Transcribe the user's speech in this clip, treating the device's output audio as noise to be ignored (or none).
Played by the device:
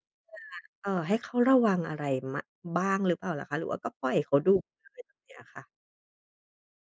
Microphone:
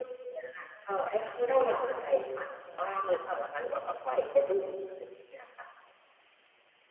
อืม